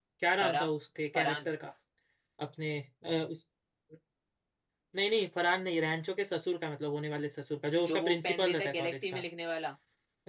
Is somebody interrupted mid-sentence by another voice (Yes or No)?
Yes